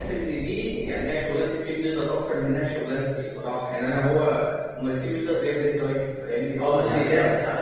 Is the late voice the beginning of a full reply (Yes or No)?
Yes